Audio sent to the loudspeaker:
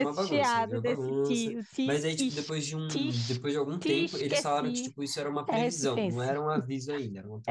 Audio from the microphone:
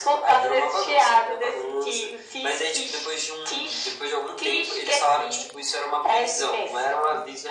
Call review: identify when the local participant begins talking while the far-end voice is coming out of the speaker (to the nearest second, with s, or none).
none